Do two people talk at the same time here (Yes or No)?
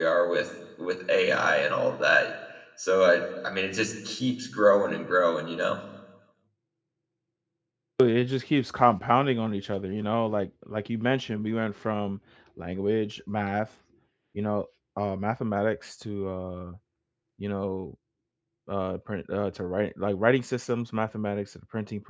No